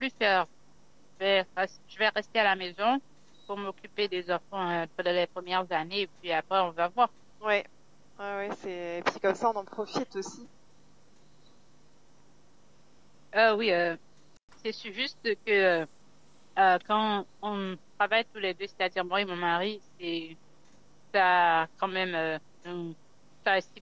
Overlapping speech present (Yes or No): No